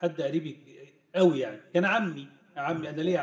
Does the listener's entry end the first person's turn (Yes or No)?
No